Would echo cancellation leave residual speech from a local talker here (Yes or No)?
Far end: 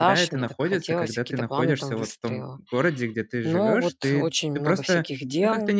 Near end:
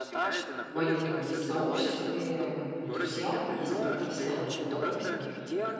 Yes